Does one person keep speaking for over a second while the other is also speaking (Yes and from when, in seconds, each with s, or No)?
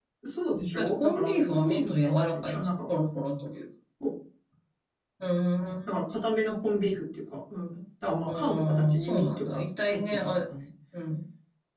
Yes, from 0.8 s